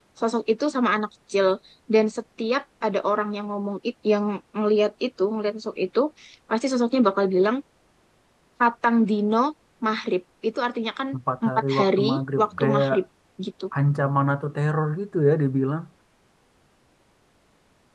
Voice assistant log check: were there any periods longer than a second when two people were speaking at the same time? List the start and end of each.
11.4-12.9

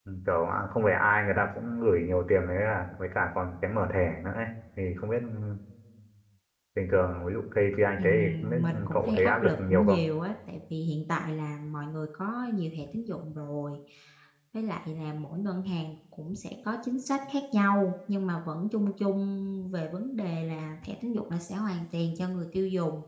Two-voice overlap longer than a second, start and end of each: 8.0-10.0

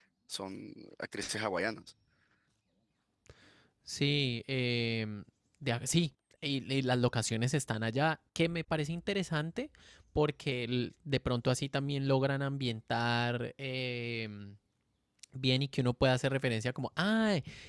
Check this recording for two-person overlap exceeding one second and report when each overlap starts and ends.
none

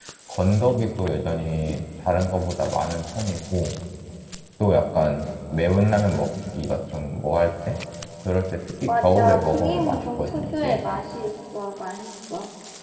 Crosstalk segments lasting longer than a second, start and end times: 9.0-10.8

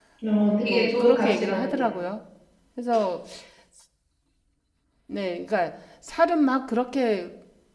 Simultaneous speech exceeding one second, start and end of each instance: 0.6-2.0

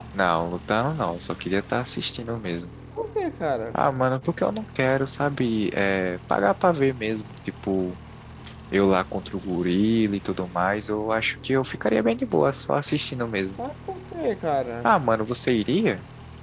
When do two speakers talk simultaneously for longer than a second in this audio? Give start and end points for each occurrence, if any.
none

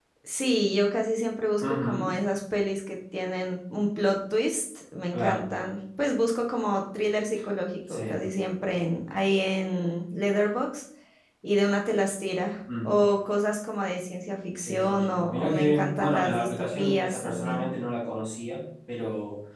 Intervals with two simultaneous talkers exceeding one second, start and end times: 14.6-17.6

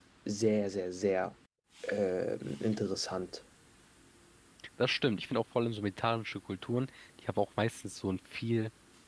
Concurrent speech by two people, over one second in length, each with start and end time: none

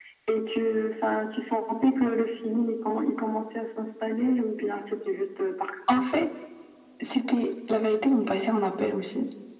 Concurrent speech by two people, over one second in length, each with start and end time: none

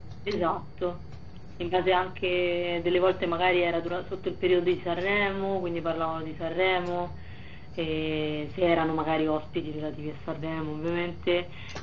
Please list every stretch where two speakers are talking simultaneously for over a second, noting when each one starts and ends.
none

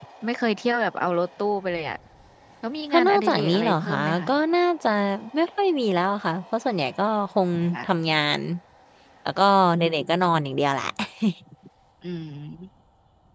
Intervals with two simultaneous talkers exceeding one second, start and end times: 2.9-4.3

